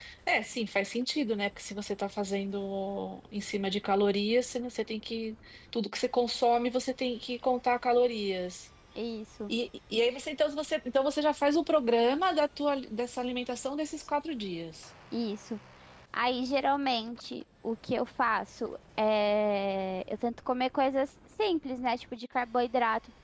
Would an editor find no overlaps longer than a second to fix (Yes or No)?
Yes